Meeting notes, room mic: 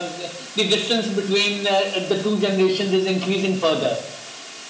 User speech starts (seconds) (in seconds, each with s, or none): none